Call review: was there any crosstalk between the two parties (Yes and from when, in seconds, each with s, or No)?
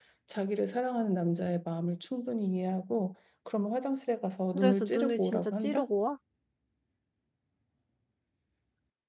Yes, from 4.5 s